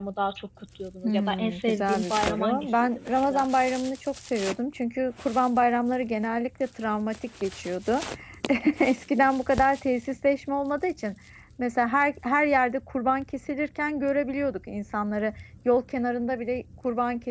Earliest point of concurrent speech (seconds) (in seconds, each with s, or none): 1.0 s